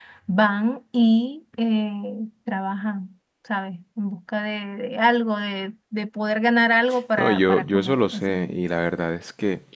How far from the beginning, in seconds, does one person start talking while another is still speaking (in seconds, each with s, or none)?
7.2 s